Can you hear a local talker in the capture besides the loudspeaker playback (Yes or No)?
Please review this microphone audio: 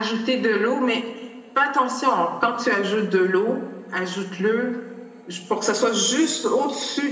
No